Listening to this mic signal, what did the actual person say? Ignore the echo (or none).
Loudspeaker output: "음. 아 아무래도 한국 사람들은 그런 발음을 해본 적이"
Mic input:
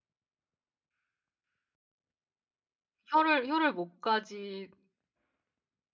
혀를 혀를 목까지